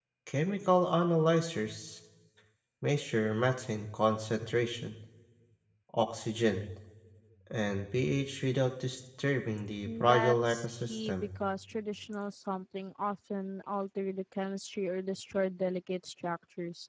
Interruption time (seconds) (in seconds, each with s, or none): 9.8 s